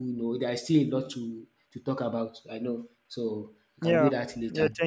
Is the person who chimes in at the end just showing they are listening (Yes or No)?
No